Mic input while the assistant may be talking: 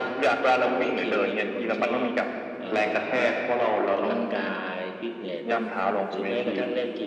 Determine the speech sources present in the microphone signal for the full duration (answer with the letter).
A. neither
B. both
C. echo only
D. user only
C